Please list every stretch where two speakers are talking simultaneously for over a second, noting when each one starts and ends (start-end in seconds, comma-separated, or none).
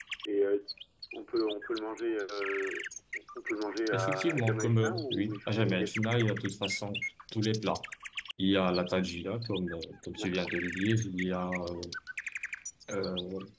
3.9-5.9